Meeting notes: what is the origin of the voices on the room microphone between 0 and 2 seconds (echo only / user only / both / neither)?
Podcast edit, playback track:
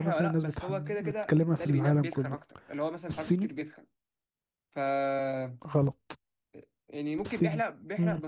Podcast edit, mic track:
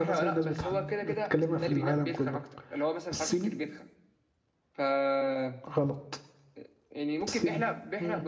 echo only